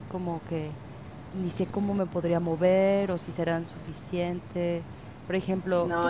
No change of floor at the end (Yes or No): Yes